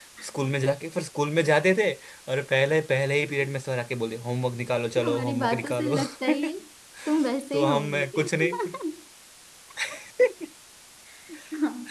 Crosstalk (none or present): present